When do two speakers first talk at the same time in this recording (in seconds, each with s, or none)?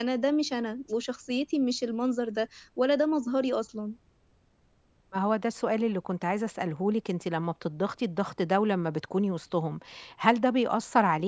none